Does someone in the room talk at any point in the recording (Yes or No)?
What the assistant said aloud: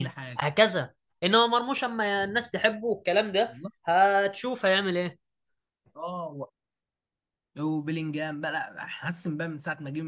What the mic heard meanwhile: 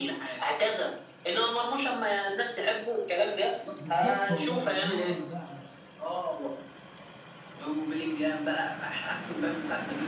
Yes